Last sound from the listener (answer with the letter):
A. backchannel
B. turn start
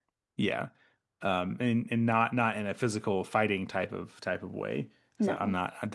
A